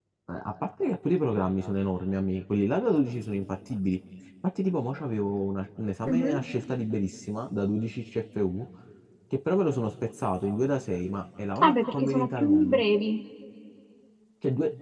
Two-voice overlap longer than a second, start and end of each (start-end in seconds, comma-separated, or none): 11.6-12.8